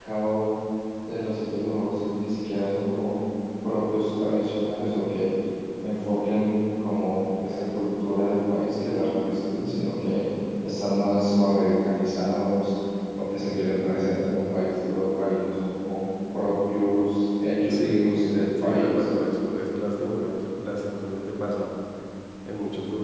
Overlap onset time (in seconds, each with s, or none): 17.7 s